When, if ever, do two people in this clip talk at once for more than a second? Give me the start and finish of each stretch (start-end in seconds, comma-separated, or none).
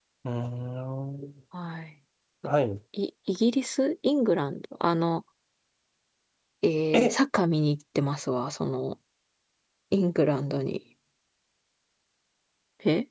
none